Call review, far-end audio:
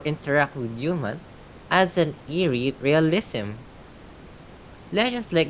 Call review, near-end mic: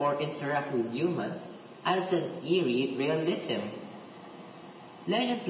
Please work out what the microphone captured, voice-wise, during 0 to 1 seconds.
echo only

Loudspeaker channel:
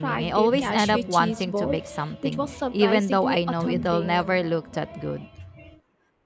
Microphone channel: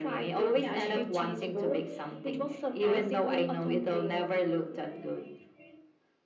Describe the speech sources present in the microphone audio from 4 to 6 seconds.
echo only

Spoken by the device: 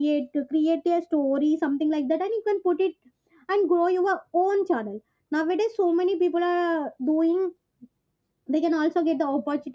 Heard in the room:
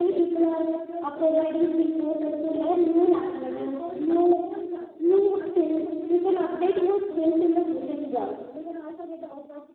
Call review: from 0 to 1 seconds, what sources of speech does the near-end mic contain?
both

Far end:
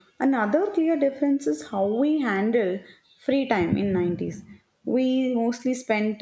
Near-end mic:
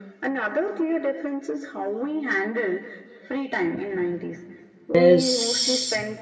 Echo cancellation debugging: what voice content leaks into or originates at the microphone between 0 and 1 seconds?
echo only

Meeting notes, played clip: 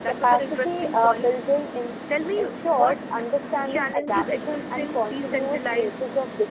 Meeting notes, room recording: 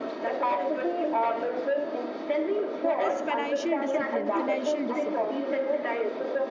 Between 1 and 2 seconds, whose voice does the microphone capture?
echo only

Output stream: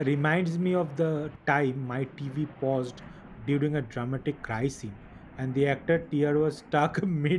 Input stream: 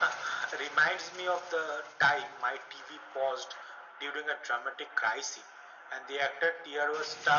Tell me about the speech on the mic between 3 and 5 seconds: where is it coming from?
echo only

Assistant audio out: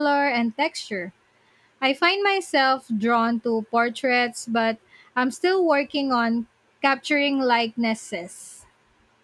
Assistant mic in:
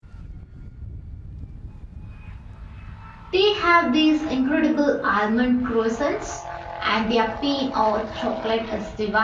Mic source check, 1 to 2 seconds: neither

